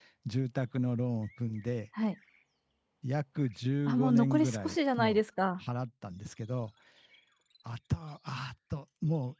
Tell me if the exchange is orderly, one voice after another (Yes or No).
No